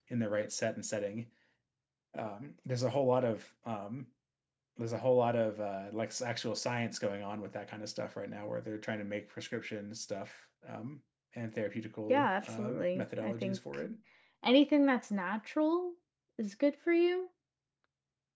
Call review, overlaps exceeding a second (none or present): present